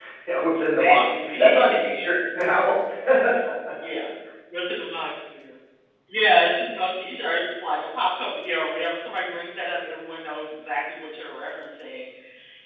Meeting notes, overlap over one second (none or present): present